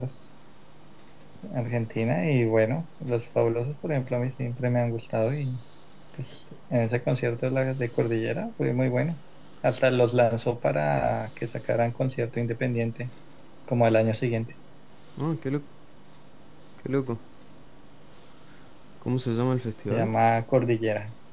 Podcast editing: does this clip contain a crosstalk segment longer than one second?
No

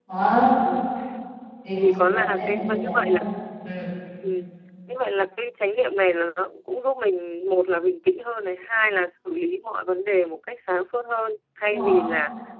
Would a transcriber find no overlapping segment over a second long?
No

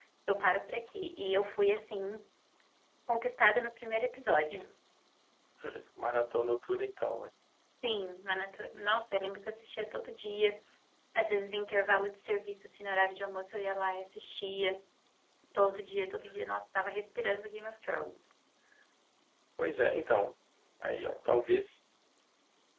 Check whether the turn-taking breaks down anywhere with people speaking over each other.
No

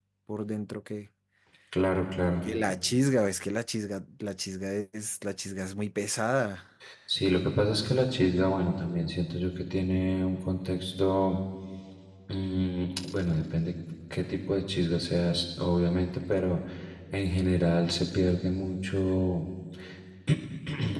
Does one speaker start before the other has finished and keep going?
No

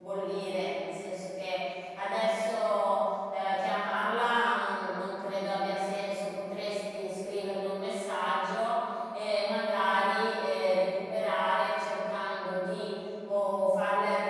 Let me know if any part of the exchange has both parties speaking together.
No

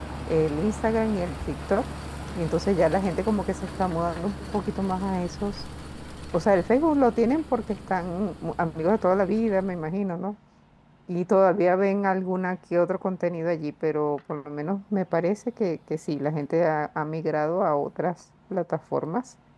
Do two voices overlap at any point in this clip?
No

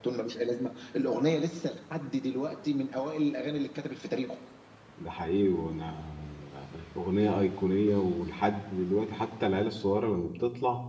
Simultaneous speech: No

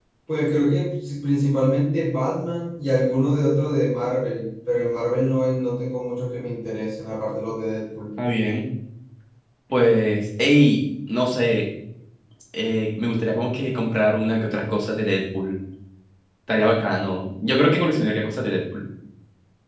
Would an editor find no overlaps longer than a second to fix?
Yes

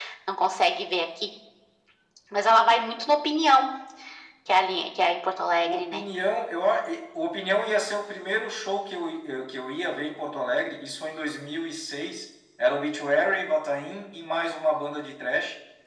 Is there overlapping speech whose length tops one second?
No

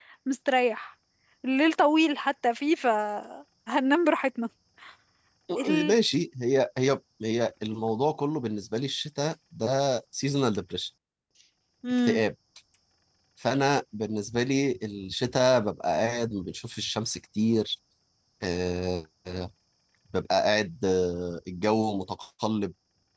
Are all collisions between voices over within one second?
Yes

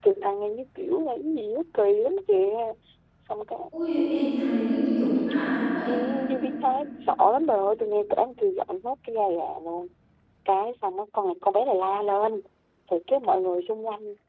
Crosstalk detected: No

